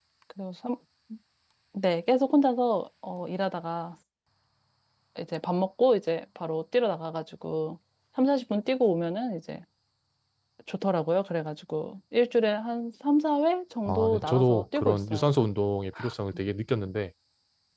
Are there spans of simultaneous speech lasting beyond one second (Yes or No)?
Yes